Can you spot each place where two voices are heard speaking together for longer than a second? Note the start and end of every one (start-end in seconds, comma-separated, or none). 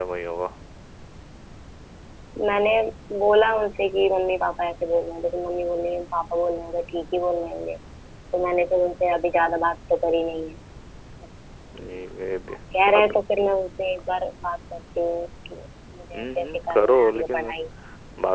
16.1-17.5